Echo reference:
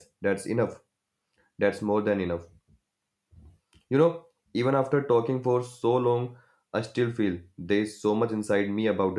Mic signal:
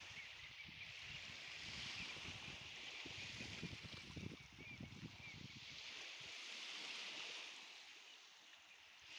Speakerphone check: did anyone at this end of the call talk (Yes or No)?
No